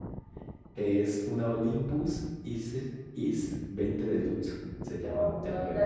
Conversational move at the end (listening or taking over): taking over